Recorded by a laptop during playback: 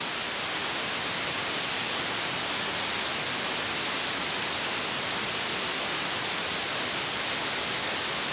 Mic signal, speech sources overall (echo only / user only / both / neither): neither